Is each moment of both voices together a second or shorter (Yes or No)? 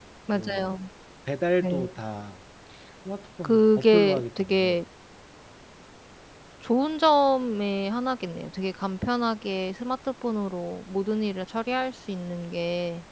No